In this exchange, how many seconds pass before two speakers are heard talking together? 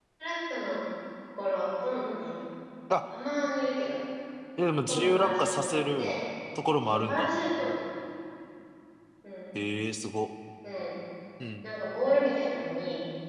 4.7 s

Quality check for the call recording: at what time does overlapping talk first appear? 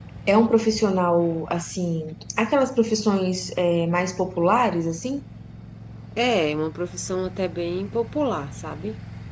none

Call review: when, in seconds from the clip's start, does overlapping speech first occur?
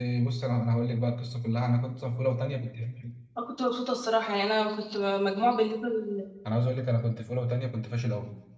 none

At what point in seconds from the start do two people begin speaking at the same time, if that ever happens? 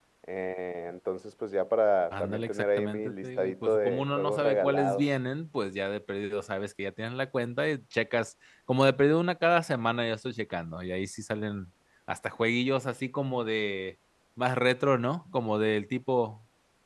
2.1 s

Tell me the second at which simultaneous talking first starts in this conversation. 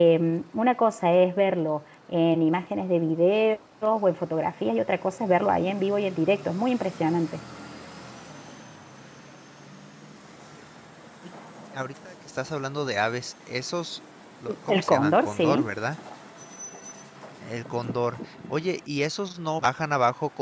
14.5 s

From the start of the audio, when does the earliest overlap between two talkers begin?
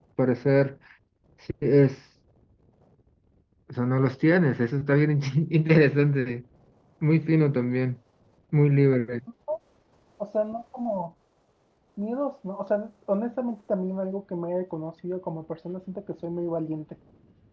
none

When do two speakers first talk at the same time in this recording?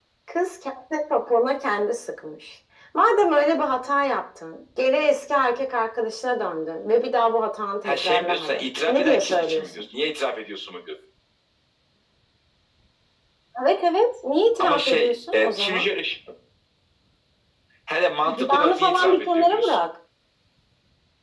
7.8 s

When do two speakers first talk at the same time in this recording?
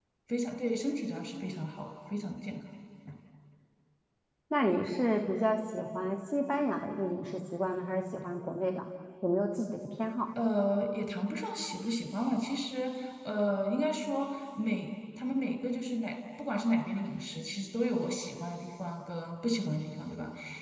none

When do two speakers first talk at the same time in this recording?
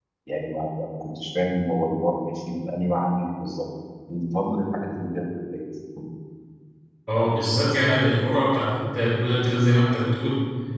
none

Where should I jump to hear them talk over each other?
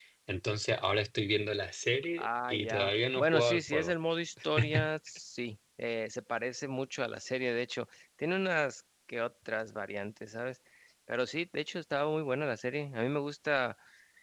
2.2 s

